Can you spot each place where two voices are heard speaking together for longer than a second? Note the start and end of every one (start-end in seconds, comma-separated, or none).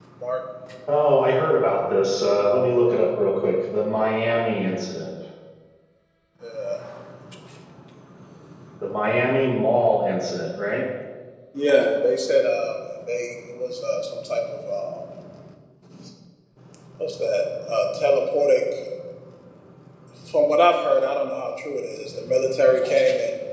none